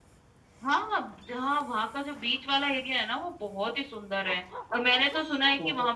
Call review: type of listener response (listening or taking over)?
listening